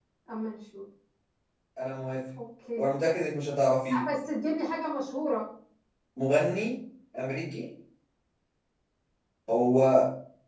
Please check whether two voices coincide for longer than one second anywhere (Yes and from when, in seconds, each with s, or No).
No